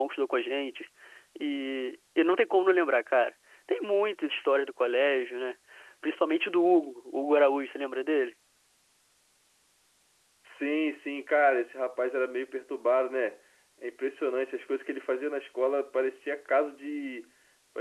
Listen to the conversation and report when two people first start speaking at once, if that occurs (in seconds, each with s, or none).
none